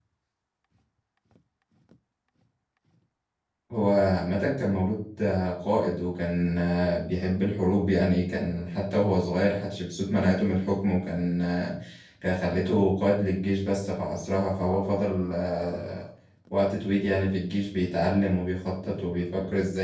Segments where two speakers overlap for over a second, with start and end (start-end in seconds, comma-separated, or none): none